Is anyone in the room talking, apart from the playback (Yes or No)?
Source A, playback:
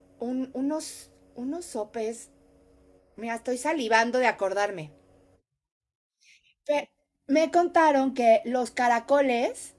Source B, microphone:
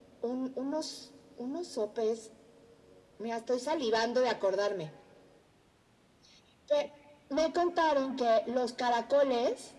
No